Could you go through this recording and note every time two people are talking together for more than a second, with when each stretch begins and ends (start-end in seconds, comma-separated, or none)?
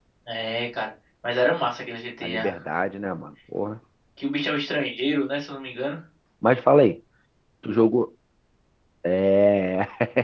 none